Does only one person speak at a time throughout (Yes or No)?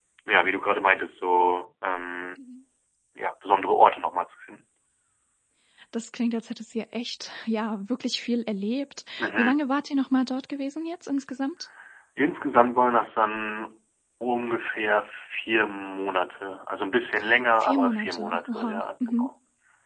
No